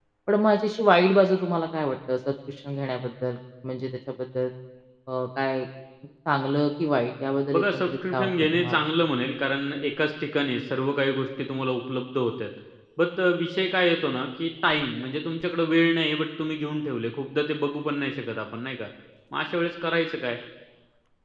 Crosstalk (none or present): present